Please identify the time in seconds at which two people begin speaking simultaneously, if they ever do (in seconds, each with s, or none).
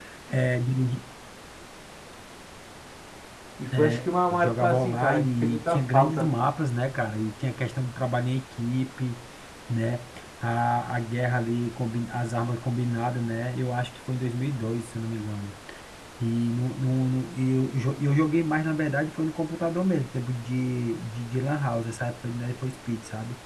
3.7 s